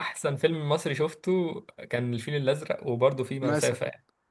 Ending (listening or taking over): taking over